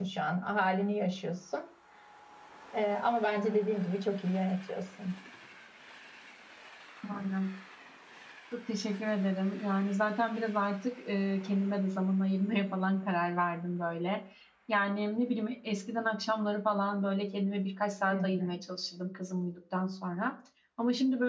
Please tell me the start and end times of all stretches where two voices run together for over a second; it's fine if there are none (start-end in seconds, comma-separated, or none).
none